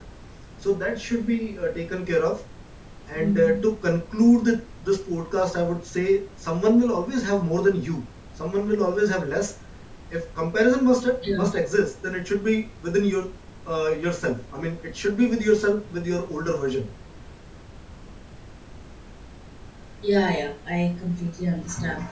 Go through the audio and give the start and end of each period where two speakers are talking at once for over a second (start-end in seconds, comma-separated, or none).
none